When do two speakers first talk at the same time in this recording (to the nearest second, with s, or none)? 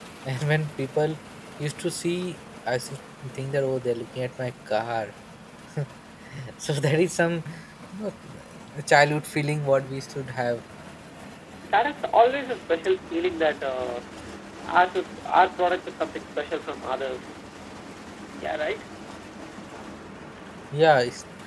none